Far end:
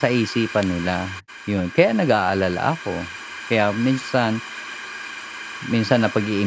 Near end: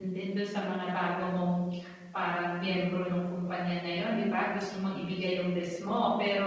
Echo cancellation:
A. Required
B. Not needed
B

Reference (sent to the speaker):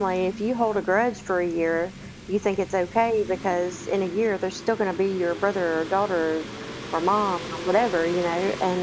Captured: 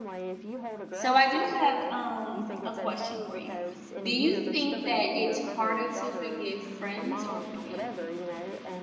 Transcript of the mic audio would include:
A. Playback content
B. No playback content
A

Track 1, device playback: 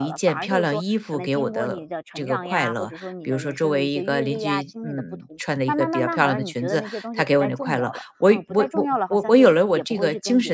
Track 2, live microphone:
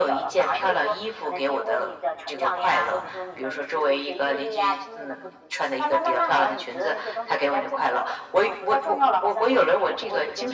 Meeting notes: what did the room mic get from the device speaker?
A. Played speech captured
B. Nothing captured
A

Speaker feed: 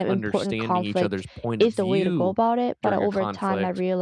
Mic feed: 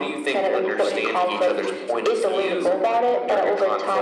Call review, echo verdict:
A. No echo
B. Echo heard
B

